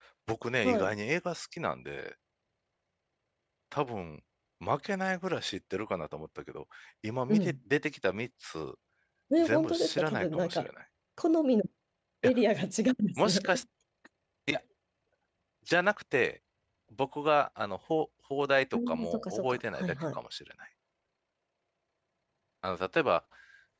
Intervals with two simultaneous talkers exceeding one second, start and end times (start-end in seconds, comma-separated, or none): 9.4-10.6, 18.7-20.2